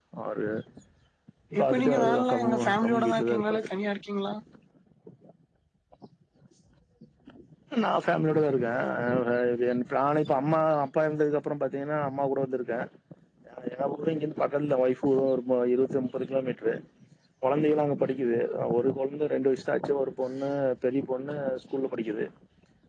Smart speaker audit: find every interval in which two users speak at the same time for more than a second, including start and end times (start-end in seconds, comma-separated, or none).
1.6-3.7